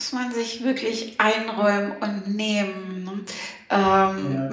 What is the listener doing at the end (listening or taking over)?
listening